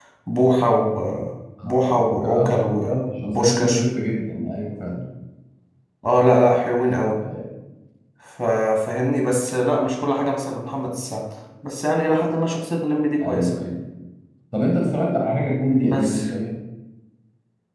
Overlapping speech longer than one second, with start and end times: 1.6-3.8

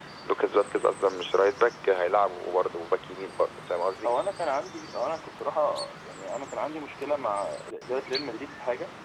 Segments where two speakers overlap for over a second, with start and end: none

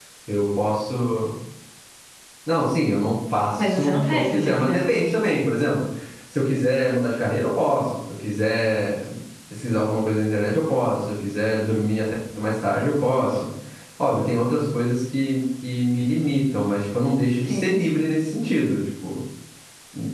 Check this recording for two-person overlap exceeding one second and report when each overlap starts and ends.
3.6-4.8

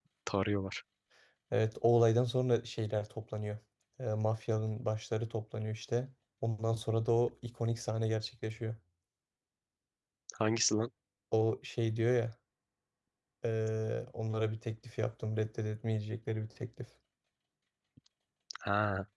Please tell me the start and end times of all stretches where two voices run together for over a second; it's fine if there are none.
none

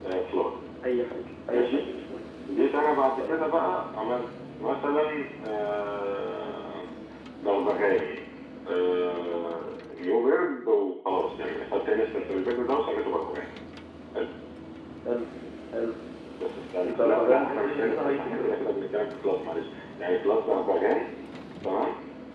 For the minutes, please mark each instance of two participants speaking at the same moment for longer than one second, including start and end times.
16.8-18.5

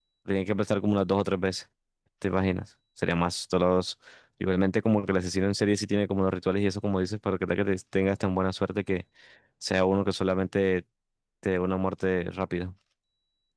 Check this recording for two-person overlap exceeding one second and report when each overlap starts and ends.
none

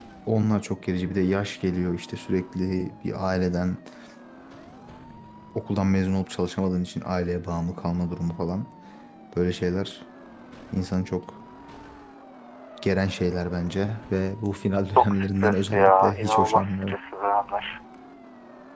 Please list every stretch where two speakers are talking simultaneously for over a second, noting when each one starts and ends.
15.0-17.0

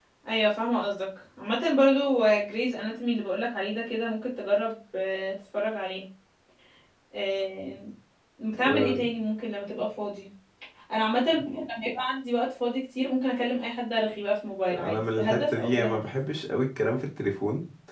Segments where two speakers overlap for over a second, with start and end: 14.7-16.1

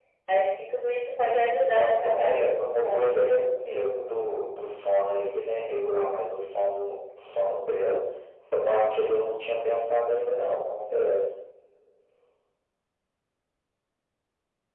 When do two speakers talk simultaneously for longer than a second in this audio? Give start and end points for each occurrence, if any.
1.7-3.1

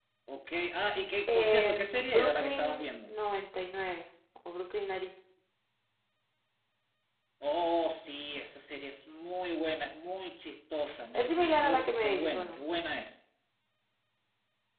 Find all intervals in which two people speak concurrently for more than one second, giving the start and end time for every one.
1.3-3.1, 11.2-12.6

